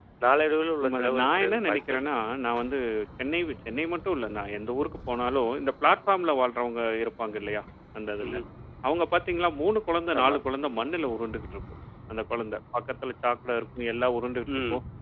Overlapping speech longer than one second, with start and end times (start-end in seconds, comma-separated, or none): 0.8-2.1